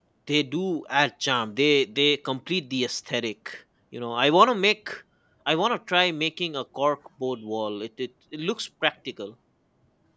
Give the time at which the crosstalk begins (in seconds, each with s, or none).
none